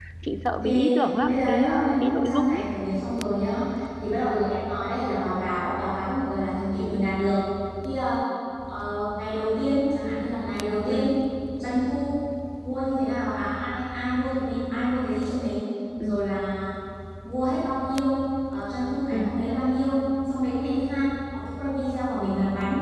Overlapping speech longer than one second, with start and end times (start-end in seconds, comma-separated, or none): 0.6-2.6